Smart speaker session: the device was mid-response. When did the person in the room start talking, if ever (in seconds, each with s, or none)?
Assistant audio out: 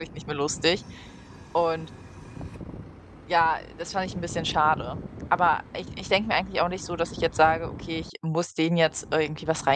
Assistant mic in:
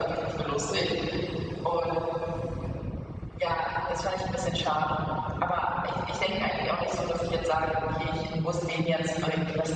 0.7 s